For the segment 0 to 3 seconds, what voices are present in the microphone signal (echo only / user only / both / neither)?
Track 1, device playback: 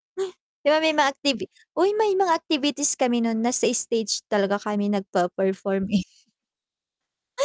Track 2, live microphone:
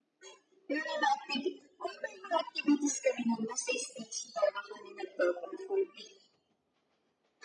echo only